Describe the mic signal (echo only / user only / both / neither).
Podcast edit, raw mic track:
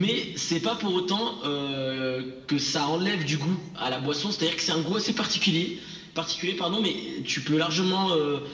echo only